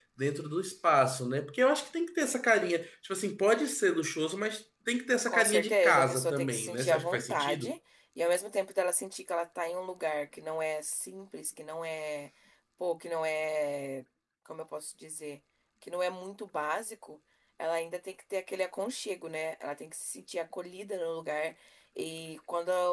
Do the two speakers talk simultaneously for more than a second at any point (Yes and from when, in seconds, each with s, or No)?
Yes, from 5.3 s